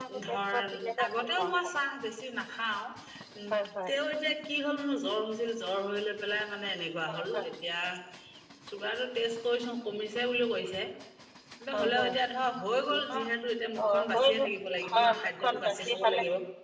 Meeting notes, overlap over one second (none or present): present